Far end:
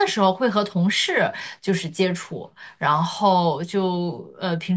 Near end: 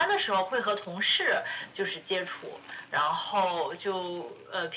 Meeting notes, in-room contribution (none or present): none